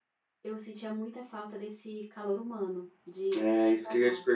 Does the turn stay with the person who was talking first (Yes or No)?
No